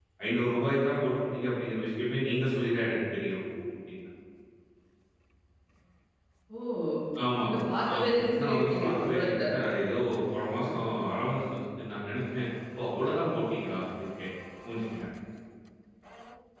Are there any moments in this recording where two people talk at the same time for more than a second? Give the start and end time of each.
8.0-9.3

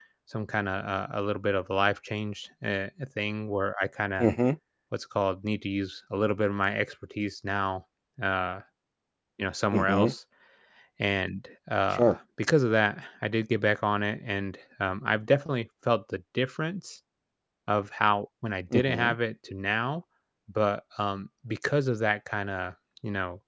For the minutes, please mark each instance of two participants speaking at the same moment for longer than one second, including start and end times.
none

